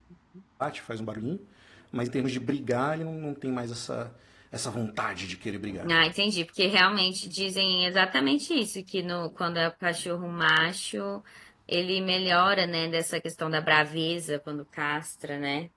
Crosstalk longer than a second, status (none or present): none